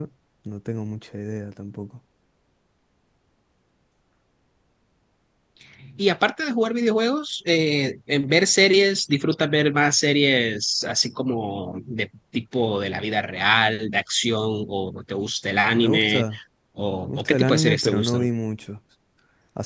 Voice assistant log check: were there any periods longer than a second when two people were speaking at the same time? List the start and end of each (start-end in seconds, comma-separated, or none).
17.1-18.3